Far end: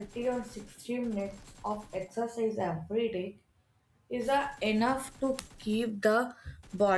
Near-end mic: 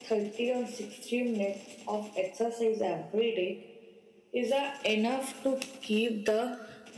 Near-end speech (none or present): none